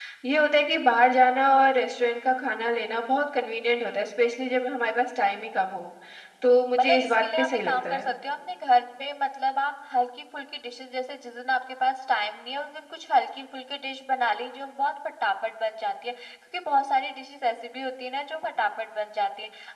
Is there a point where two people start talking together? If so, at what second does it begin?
6.8 s

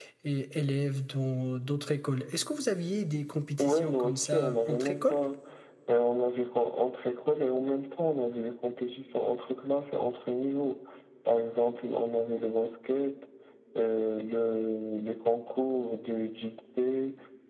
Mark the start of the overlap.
3.6 s

